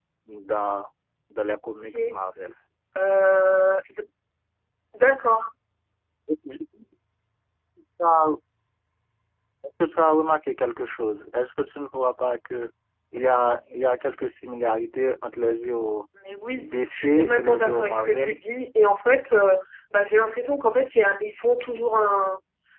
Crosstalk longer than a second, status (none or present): present